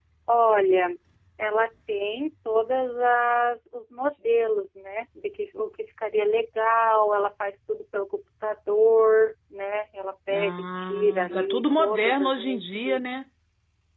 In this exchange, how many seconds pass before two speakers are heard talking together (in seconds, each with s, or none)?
10.3 s